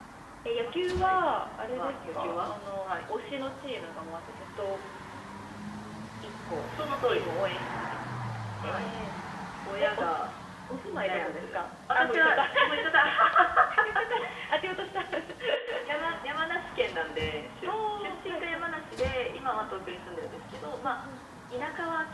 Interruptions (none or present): present